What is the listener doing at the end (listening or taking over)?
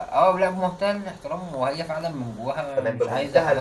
taking over